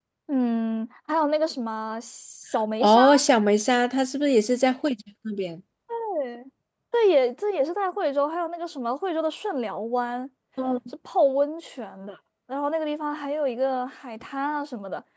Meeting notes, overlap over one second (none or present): none